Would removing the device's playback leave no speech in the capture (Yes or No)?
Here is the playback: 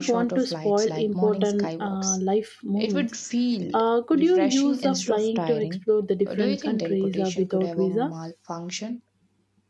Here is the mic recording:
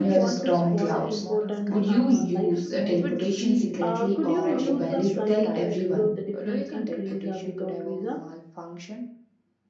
No